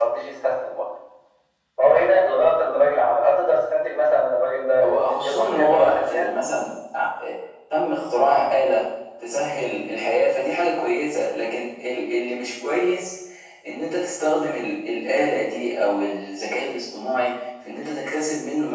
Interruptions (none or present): present